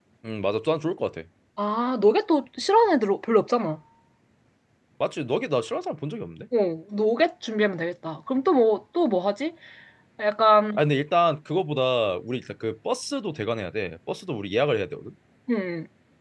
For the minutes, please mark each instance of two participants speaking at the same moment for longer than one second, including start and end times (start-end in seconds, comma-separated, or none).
none